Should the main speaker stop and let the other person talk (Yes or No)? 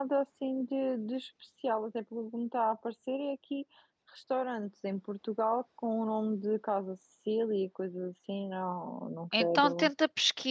Yes